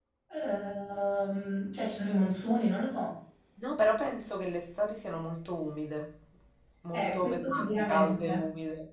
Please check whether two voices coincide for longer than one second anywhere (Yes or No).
Yes